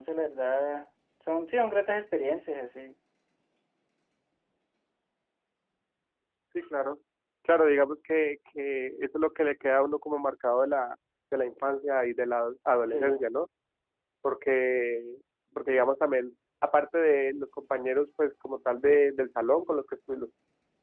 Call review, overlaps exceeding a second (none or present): none